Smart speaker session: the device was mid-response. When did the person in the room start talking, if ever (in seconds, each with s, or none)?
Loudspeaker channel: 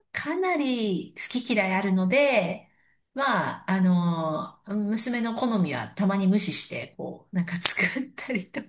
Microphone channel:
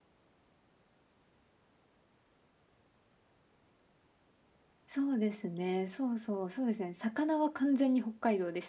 4.9 s